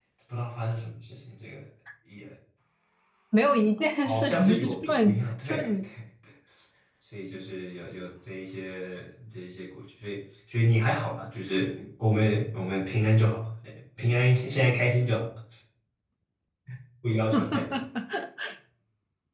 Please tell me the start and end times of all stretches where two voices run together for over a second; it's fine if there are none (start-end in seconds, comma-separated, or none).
4.0-5.7